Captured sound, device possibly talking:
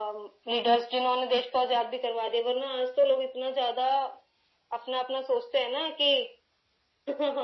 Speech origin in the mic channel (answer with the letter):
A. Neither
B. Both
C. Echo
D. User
C